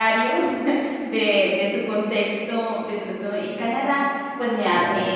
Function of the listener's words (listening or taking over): listening